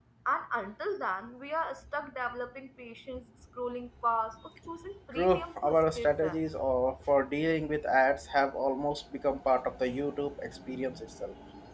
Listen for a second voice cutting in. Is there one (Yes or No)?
Yes